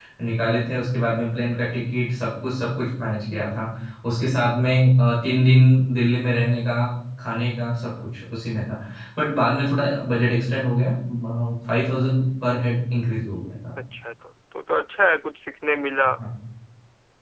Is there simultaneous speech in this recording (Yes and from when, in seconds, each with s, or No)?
No